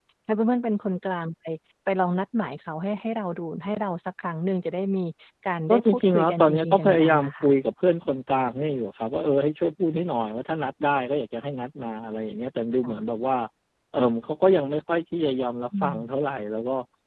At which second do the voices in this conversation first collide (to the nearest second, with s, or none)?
6 s